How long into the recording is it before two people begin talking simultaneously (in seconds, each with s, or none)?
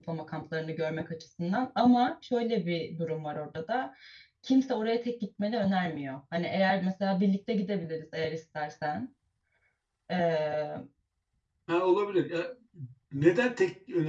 none